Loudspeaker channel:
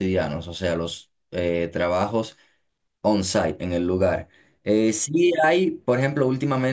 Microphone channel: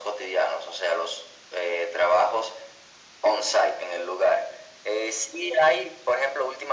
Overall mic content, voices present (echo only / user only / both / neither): echo only